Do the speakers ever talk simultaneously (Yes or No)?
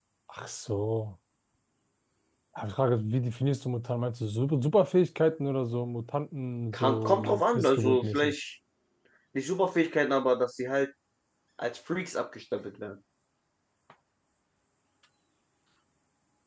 Yes